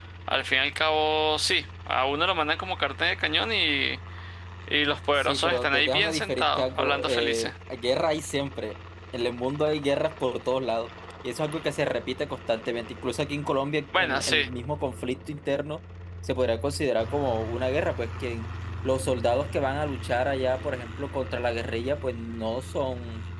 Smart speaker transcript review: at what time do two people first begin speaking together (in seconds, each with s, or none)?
5.2 s